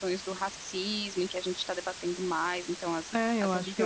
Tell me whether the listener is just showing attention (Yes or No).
No